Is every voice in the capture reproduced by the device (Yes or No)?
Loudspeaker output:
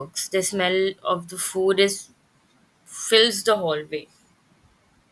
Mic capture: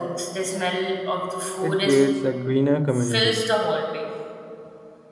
No